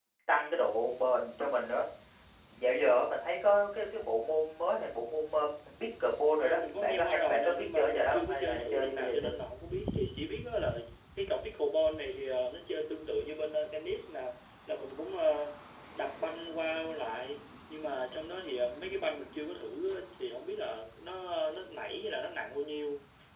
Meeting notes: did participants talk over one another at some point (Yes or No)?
Yes